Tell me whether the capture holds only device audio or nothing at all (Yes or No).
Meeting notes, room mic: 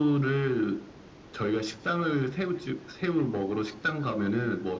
Yes